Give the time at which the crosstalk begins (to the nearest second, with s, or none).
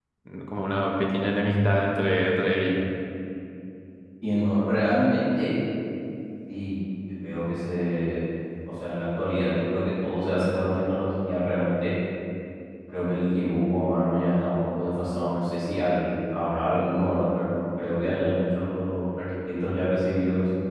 none